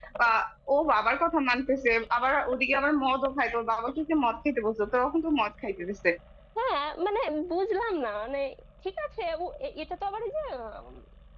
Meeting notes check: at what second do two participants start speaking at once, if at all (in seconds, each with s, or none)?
none